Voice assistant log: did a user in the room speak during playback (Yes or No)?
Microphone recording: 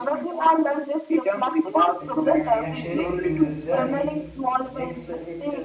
Yes